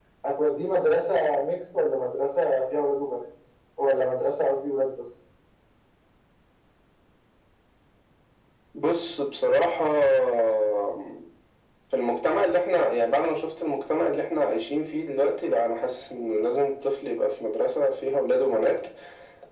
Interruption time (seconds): none

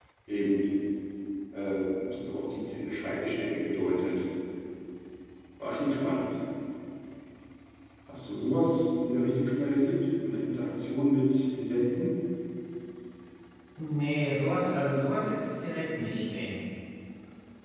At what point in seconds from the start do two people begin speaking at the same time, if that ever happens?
none

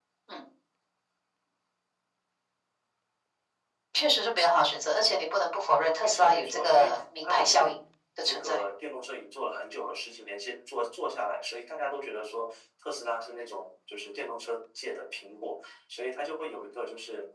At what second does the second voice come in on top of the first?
6.0 s

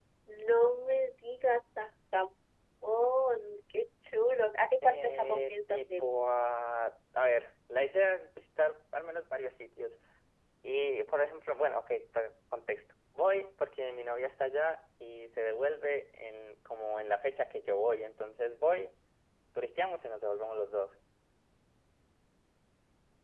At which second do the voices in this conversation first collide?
4.8 s

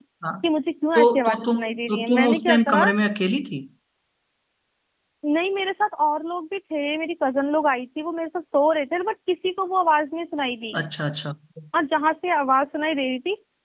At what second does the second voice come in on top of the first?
0.9 s

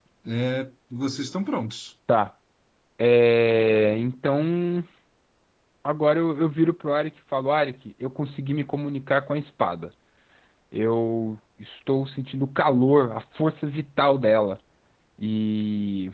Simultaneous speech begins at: none

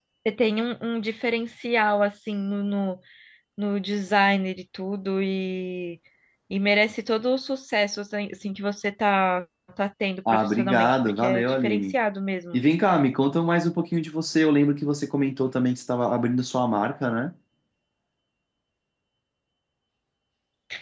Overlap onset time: 10.2 s

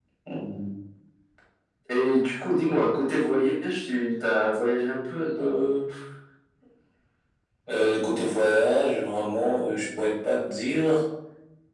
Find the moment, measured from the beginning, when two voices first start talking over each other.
none

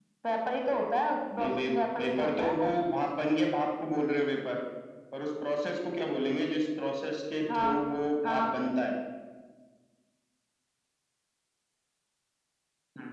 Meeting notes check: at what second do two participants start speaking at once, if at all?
1.4 s

